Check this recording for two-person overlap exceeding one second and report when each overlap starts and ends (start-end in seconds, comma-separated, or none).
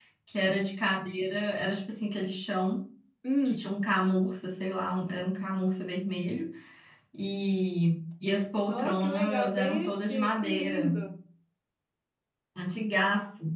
8.7-11.0